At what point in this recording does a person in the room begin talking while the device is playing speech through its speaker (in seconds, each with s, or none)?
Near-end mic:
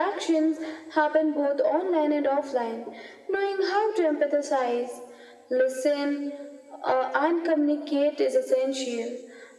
none